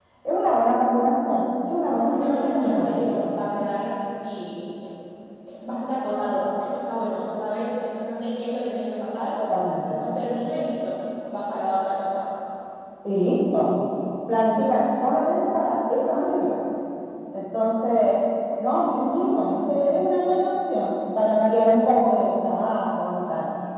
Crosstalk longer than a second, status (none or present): present